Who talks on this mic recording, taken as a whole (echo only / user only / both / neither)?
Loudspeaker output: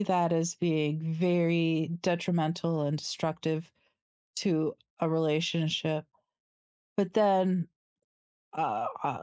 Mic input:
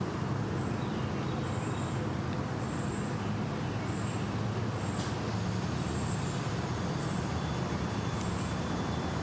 neither